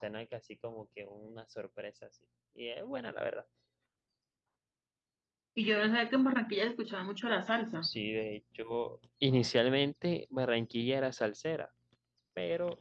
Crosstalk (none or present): none